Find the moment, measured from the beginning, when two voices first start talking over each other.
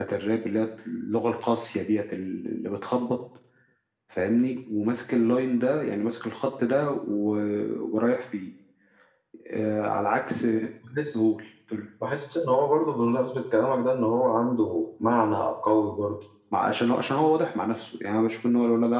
none

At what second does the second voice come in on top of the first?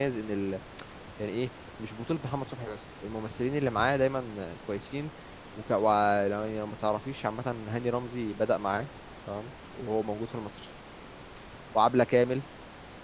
none

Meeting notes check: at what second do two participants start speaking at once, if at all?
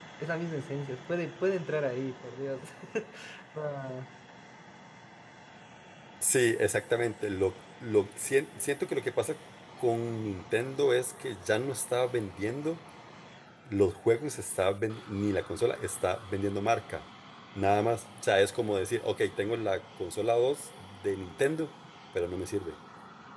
none

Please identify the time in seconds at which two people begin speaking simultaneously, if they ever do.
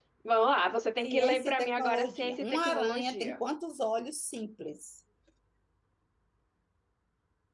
1.0 s

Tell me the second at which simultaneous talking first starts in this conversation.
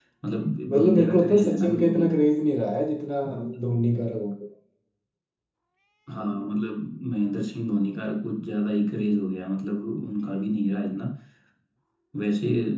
0.7 s

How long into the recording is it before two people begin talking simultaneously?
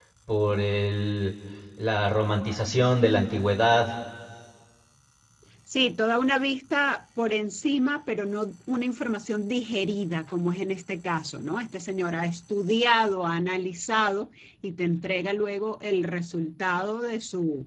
none

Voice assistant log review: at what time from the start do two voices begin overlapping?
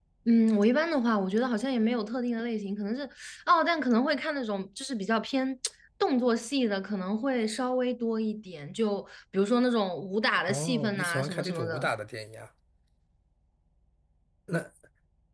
10.5 s

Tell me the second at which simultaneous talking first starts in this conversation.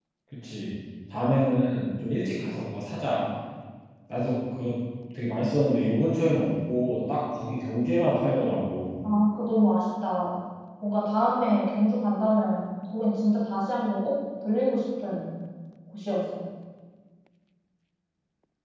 none

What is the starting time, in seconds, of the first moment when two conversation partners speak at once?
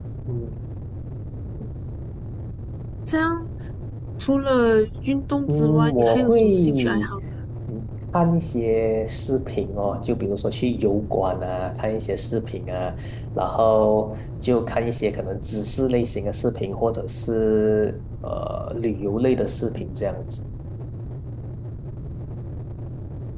5.5 s

